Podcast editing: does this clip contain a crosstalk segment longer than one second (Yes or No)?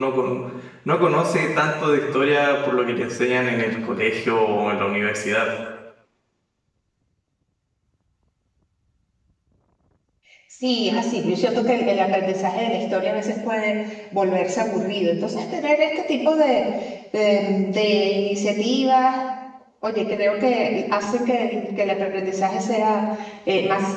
No